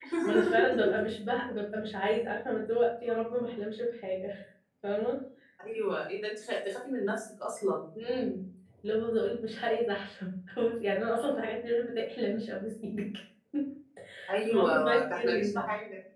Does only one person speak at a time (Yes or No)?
No